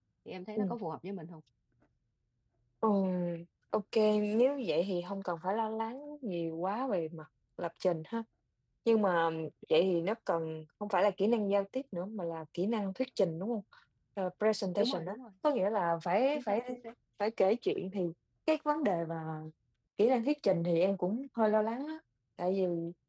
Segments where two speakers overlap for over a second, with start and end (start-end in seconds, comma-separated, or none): none